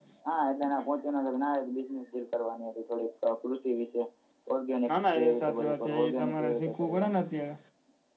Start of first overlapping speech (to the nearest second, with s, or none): 5 s